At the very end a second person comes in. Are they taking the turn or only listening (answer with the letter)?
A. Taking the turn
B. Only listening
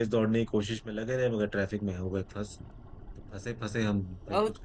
A